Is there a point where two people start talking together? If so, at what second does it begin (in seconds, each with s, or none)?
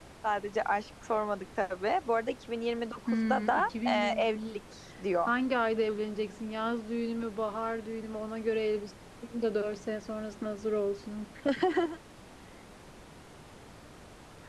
3.1 s